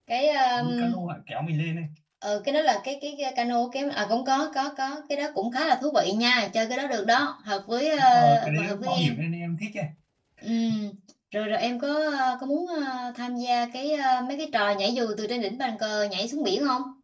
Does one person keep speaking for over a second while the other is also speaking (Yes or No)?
Yes